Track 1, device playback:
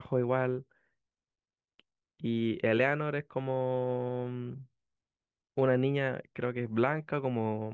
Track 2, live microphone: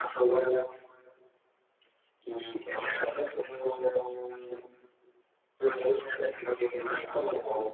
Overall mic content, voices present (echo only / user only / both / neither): echo only